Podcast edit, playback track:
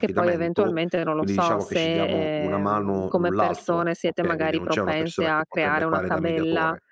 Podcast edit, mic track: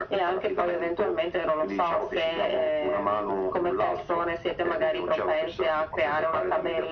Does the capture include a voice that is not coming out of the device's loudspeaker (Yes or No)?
No